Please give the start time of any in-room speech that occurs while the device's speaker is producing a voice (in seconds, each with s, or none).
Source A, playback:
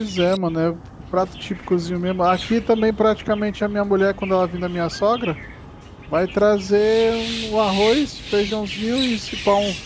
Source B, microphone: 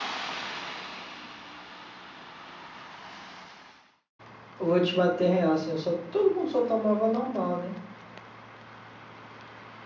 4.6 s